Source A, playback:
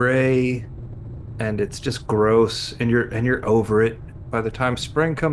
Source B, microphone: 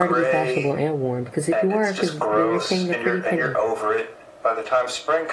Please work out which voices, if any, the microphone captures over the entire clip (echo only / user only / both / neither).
both